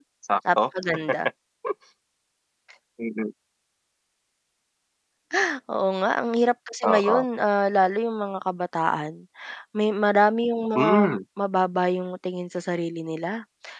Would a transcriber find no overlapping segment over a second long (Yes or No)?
Yes